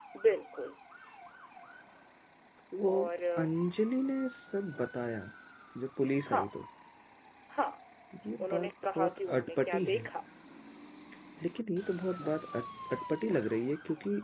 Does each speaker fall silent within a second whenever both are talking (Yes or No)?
No